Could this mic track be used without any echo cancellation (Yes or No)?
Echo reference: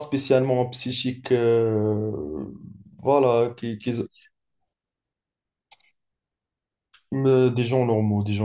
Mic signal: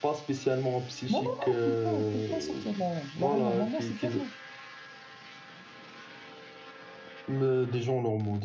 No